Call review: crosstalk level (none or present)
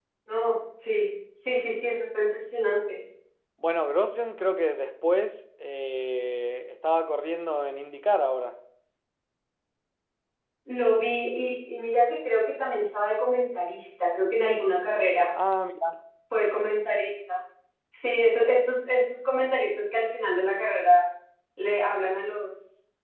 none